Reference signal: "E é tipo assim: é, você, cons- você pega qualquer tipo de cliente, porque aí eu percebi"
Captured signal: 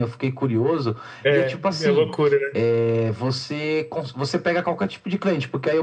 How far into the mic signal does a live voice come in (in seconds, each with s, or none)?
1.2 s